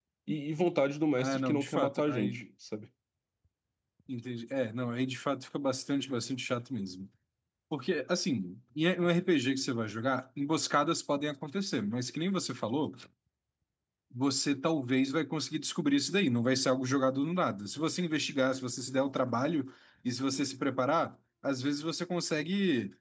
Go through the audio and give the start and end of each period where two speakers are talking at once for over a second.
1.2-2.4

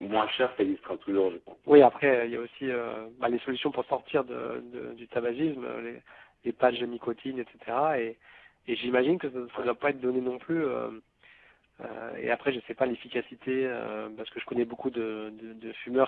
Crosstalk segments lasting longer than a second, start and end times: none

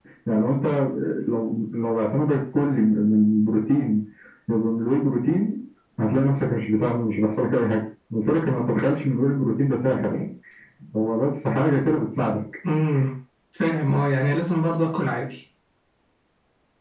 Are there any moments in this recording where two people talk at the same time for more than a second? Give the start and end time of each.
none

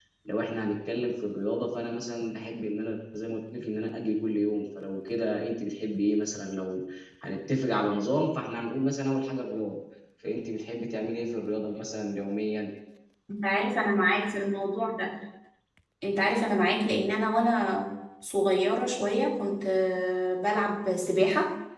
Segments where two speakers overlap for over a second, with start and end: none

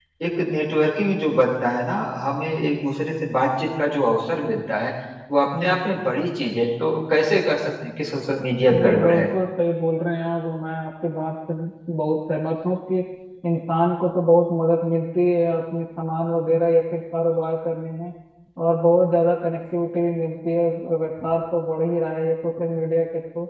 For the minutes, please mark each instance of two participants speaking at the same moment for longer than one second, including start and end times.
none

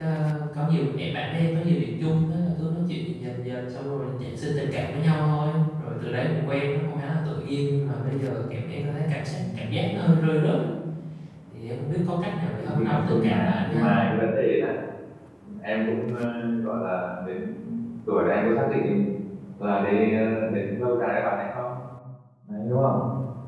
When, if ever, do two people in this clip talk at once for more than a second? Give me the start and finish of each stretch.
12.6-13.8

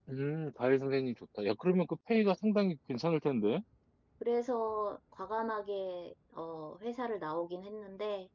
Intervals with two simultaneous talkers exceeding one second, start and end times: none

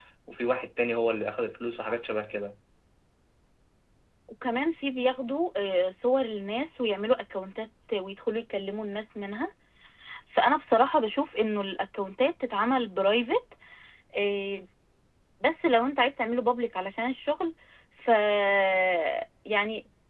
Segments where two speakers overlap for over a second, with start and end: none

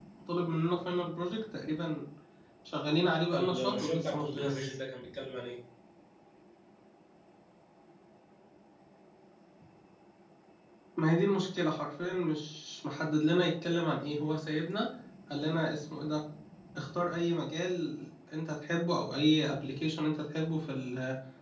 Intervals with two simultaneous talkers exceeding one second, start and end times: 3.3-4.8

